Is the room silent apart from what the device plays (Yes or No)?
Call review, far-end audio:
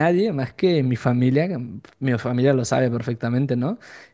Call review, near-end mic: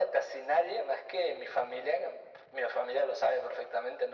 Yes